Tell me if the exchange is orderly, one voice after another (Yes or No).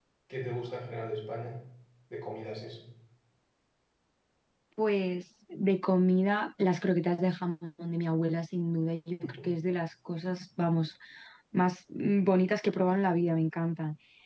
Yes